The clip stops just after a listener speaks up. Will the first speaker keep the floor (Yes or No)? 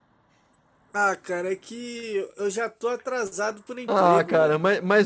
No